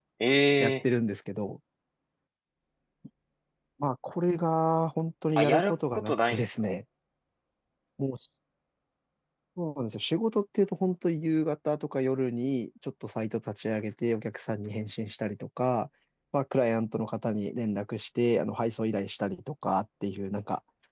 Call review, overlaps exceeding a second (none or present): present